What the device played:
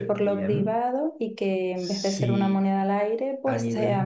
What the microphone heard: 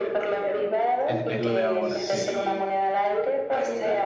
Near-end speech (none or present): present